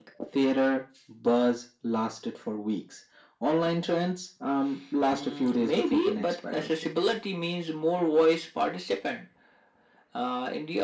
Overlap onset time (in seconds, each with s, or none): 5.1 s